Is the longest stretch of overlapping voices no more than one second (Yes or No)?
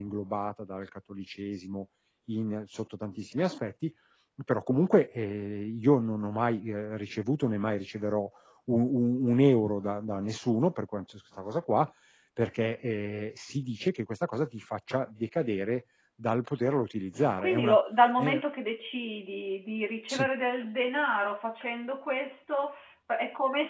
Yes